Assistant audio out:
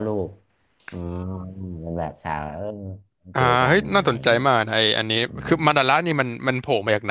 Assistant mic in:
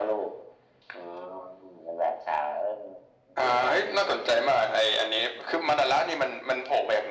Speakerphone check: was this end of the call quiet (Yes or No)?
Yes